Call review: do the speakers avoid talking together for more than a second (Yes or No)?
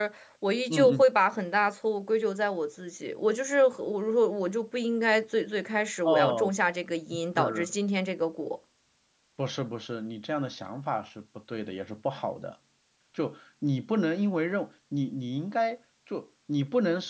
Yes